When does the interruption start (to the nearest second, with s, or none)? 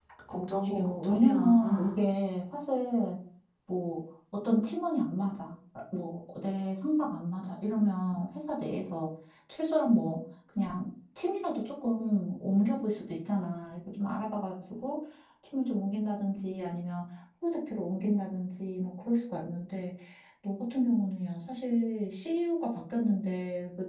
1 s